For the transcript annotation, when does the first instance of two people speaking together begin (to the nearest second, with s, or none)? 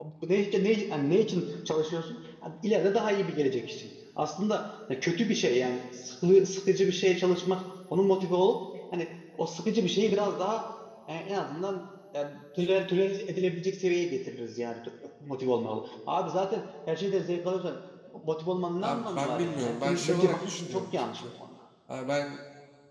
19 s